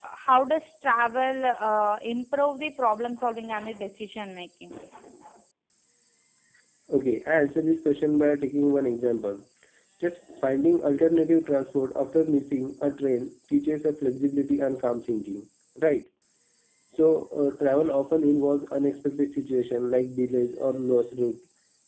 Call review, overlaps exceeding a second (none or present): none